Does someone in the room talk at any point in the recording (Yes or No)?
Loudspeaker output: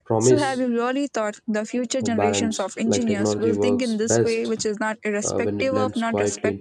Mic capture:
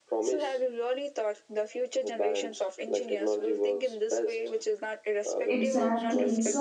Yes